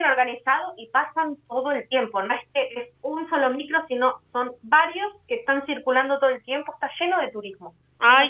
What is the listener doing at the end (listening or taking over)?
taking over